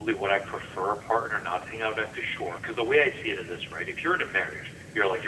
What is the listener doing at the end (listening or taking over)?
listening